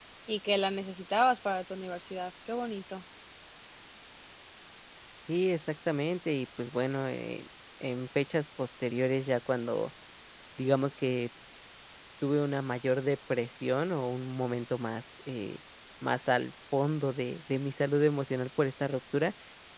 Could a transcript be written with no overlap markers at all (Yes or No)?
Yes